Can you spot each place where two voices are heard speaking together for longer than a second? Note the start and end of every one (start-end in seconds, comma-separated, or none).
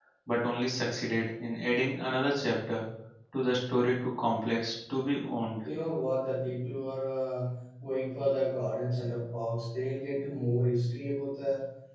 none